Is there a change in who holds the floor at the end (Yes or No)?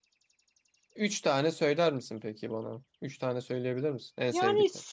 Yes